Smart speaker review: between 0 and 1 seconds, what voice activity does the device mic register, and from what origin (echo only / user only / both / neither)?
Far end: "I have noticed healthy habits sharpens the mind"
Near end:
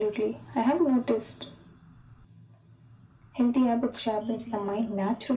echo only